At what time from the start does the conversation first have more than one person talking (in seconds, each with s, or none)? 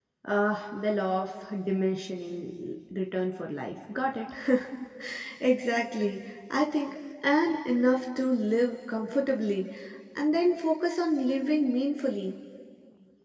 none